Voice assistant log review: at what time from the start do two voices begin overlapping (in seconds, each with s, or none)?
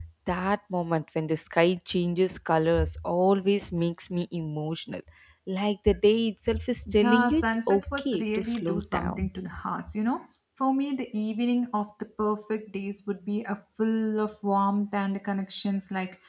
6.9 s